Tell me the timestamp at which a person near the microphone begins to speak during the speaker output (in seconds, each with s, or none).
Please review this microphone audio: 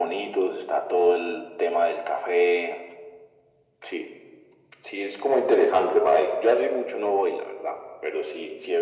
none